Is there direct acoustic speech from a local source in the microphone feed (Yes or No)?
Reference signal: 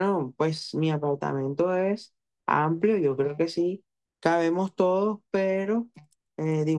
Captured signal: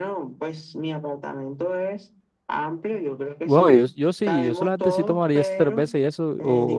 Yes